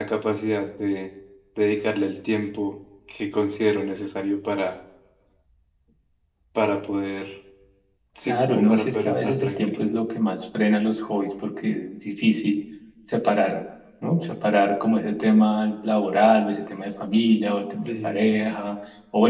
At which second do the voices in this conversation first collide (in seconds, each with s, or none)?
8.2 s